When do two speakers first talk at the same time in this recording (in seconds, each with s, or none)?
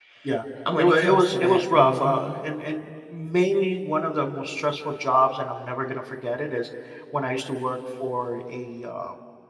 0.8 s